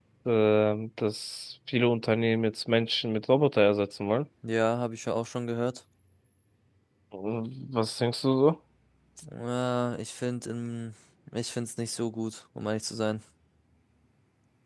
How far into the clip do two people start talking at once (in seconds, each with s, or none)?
none